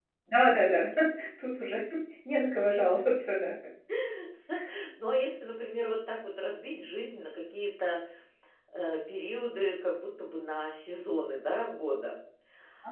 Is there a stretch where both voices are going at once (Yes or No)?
No